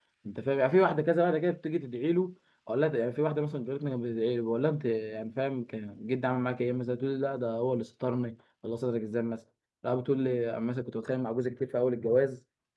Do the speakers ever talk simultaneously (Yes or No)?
No